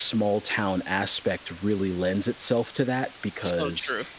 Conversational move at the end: listening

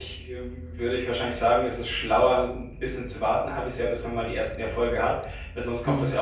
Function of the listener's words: listening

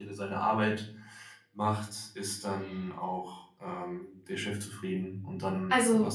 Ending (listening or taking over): taking over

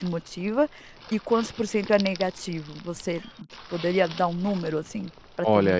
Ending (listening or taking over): taking over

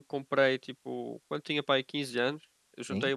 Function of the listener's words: listening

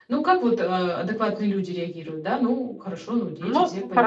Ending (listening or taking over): taking over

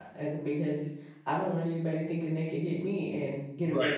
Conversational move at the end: taking over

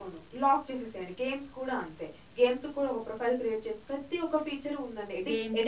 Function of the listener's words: taking over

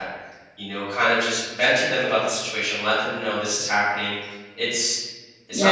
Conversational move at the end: taking over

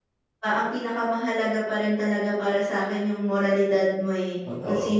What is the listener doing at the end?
listening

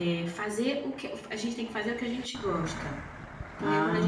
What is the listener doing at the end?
listening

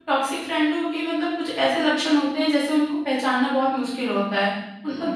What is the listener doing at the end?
listening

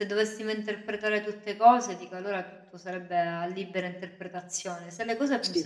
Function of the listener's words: listening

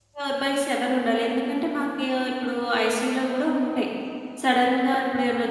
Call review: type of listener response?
listening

